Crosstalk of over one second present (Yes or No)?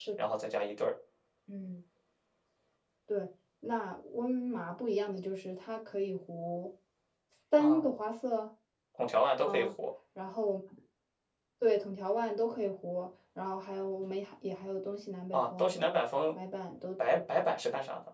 No